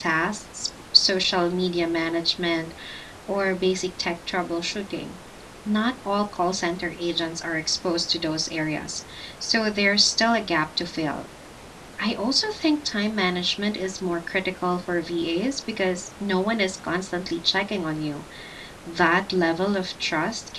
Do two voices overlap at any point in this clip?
No

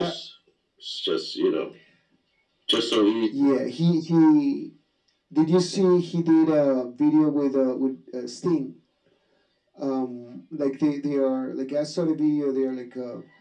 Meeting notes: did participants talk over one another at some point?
No

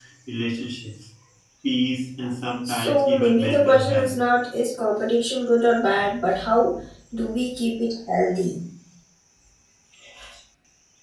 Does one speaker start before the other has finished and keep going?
Yes, from 2.6 s

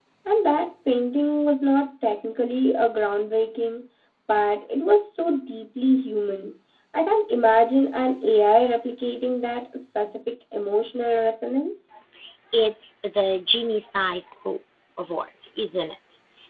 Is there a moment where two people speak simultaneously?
No

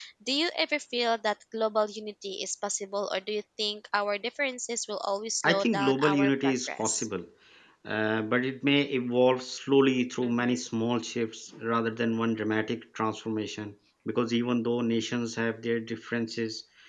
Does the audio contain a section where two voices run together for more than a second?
Yes, from 5.5 s

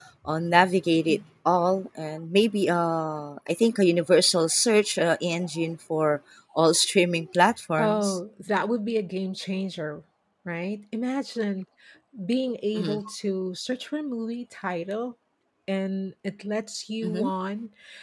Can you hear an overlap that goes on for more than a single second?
No

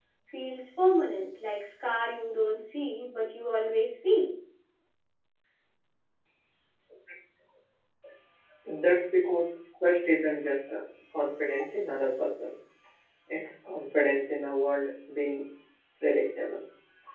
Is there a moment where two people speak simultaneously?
No

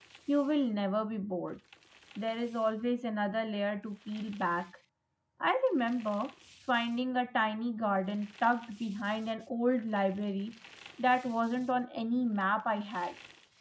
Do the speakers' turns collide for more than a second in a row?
No

